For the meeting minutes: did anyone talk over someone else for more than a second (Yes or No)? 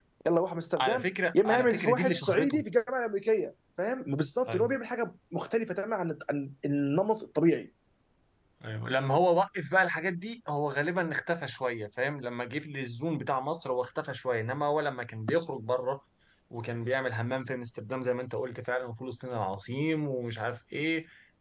Yes